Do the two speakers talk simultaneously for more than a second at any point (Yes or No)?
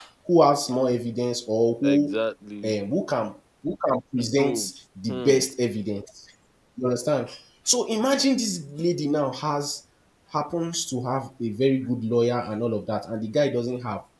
No